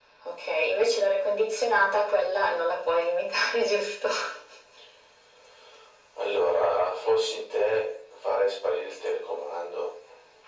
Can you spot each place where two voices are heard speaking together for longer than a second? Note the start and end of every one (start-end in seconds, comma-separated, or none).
none